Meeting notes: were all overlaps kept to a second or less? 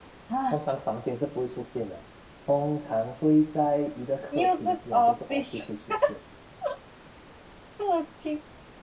No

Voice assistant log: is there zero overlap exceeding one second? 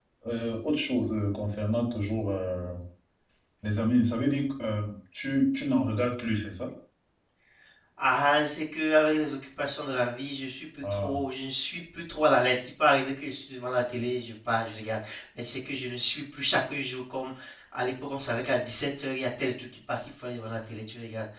Yes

